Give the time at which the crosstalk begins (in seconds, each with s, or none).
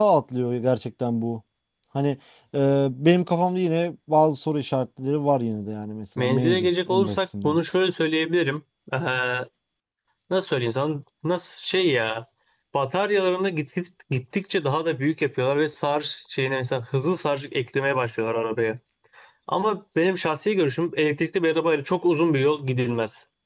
6.2 s